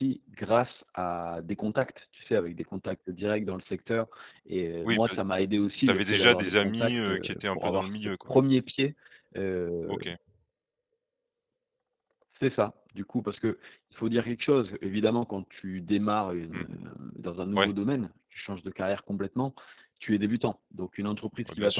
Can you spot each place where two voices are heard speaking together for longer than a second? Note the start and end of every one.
5.9-8.3

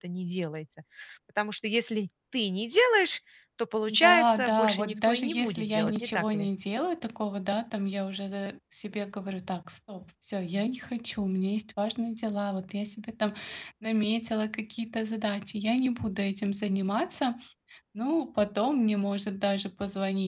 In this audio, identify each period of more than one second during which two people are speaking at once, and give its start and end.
3.9-6.5

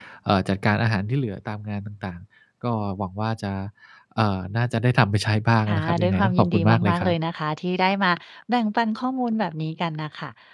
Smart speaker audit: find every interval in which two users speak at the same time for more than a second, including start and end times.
5.7-7.2

